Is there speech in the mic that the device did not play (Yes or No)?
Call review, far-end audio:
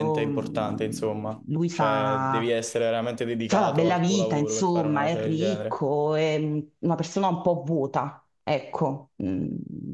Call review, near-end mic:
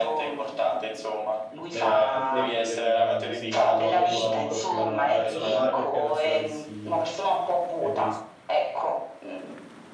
Yes